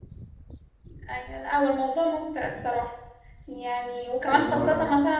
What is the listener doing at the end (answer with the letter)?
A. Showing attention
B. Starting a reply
A